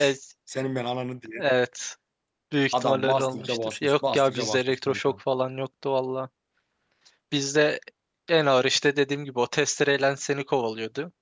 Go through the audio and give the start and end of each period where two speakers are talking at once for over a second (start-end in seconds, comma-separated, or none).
2.7-5.1